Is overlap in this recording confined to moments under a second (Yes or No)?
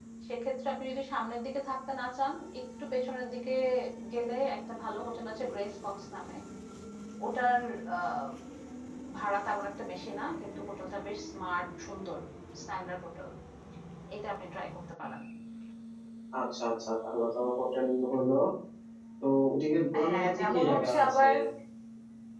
No